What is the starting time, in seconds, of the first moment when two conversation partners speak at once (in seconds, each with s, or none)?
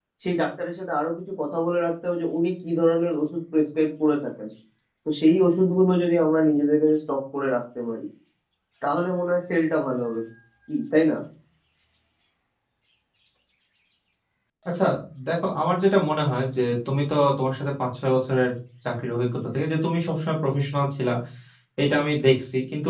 none